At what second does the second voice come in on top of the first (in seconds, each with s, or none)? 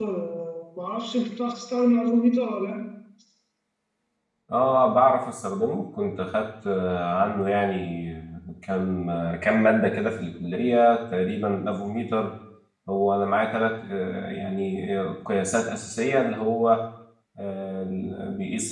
none